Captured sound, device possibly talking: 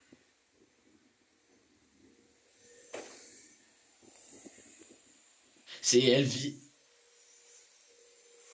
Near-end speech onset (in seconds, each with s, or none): 5.8 s